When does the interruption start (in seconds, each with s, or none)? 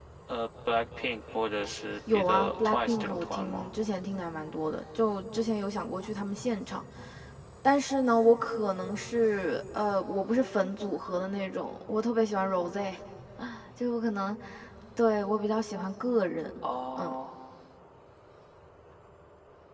2.1 s